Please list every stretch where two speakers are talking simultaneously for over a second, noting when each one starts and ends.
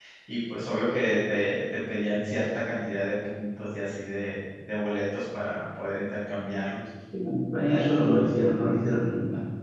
none

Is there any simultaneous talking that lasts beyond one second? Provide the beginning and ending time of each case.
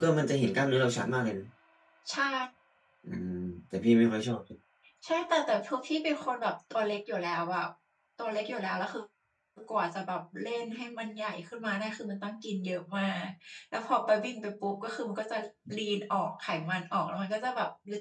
none

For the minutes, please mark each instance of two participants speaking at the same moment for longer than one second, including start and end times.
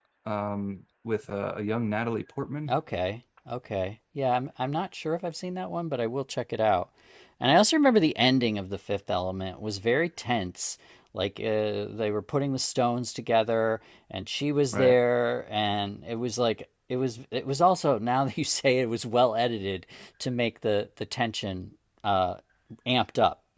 none

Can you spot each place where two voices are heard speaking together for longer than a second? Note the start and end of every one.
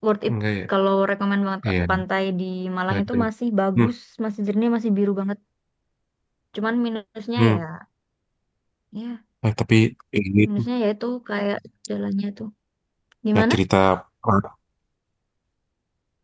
none

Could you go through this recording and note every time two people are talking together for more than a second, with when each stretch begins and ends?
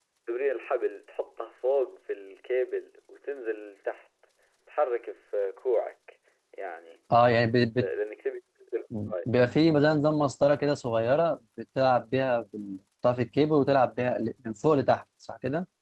none

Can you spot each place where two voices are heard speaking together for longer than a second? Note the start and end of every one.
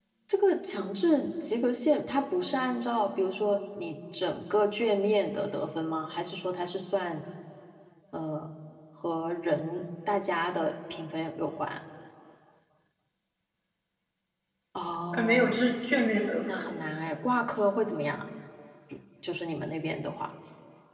none

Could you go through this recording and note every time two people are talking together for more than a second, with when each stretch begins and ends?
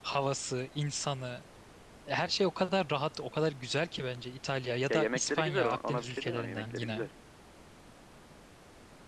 4.9-7.0

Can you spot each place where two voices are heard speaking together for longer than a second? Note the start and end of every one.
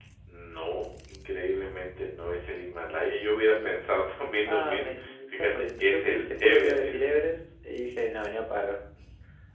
4.5-7.1

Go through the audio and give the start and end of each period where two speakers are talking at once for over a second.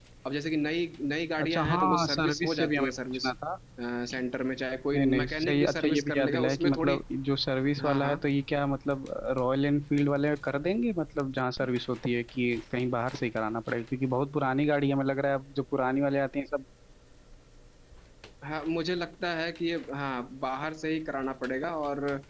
1.4-3.3, 4.9-7.0

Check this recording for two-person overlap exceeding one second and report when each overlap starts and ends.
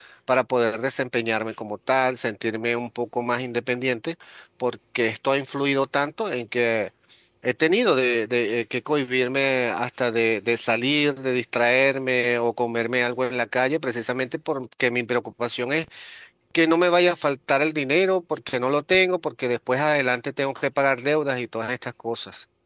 none

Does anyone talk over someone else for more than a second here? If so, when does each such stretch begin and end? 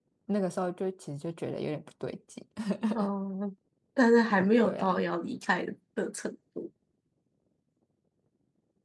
none

